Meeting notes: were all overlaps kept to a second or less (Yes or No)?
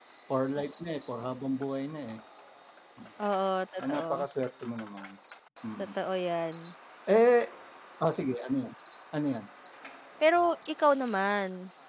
Yes